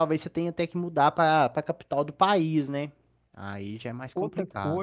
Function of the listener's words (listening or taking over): taking over